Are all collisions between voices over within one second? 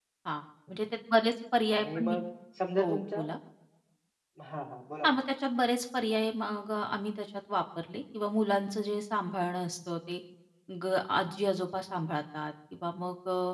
Yes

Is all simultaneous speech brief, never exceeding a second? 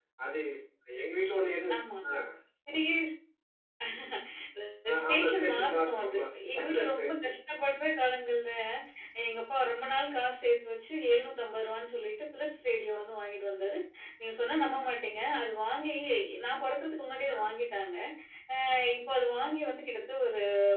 No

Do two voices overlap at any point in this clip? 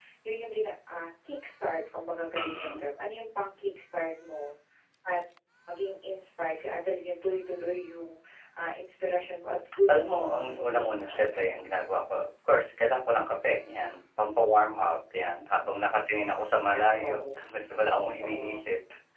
Yes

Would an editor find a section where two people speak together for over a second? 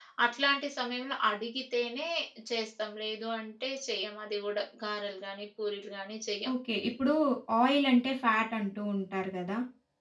No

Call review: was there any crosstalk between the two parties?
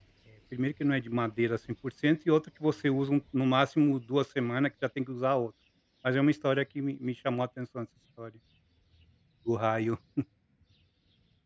No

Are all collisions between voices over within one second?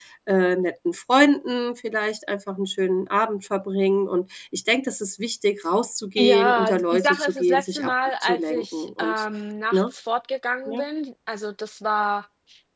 No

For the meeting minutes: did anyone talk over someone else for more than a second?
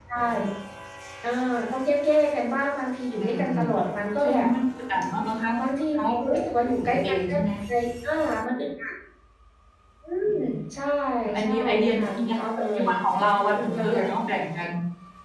Yes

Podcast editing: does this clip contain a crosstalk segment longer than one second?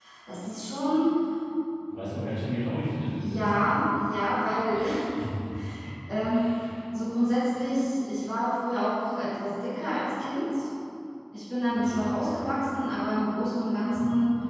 No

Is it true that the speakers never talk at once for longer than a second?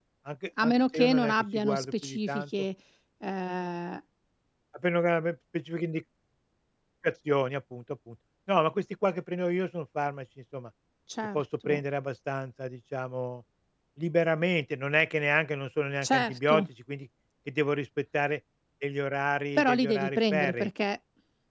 No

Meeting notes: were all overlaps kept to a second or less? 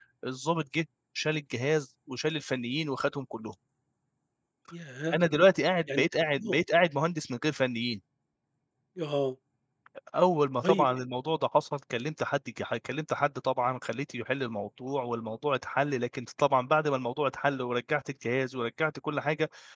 Yes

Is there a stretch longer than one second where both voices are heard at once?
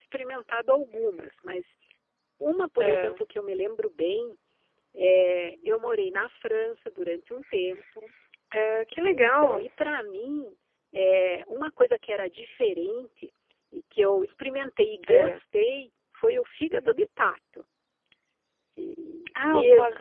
No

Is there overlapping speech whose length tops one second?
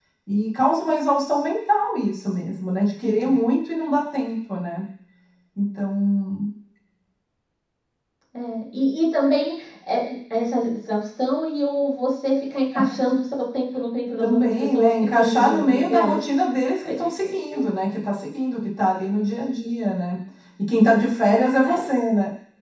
Yes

